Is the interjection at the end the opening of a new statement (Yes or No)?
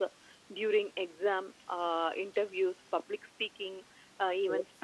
No